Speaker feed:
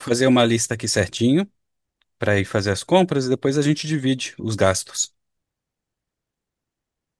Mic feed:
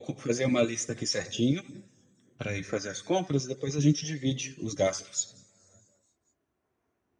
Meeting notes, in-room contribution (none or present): none